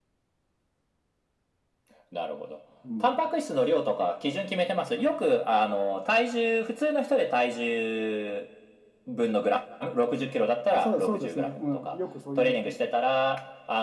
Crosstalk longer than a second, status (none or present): present